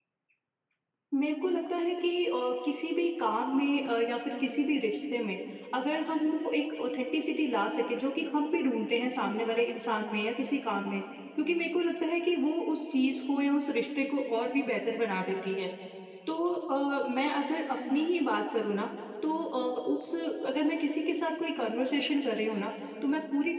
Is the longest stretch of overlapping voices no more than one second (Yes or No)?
Yes